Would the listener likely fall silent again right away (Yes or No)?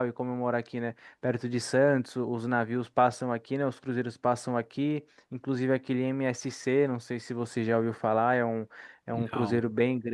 Yes